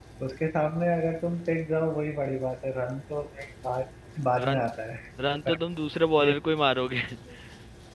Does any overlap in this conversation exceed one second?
No

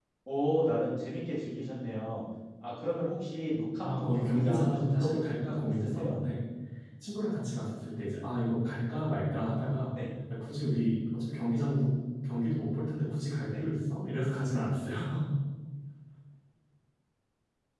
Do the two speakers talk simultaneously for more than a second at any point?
Yes, from 3.8 s

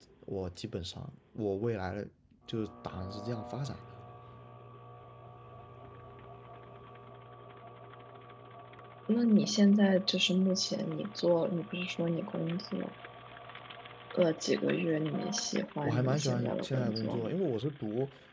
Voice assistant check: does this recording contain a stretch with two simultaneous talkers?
Yes, from 15.8 s

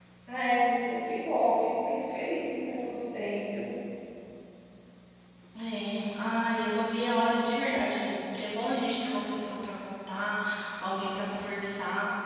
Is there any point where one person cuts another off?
No

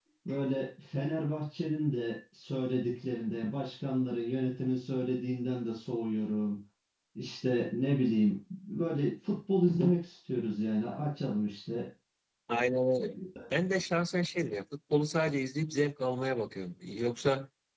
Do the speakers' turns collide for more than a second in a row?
No

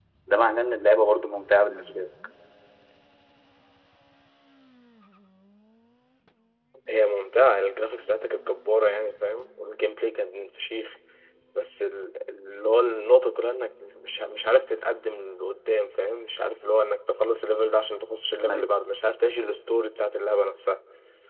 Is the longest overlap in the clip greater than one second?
No

